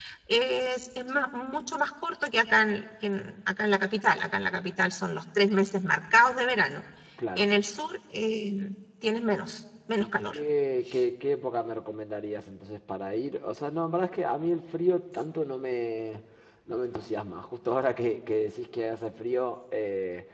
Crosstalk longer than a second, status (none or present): none